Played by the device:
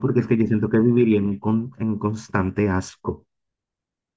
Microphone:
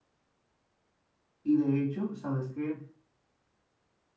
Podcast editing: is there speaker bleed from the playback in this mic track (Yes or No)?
No